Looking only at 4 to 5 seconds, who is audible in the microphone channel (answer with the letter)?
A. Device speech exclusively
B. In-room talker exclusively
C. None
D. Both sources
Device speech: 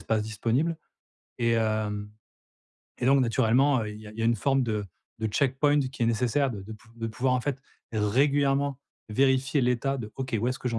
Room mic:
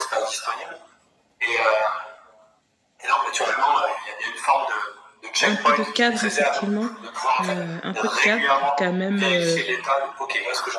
A